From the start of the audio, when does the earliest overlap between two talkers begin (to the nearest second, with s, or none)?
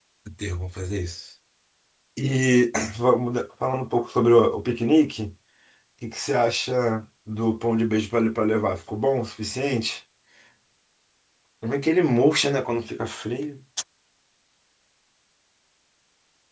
none